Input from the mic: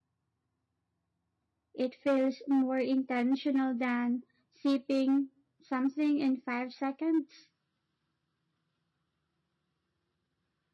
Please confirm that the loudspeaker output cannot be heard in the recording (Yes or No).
Yes